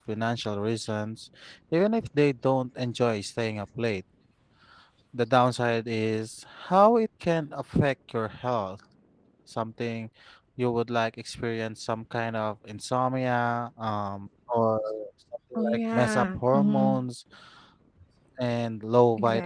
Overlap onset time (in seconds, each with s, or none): 15.6 s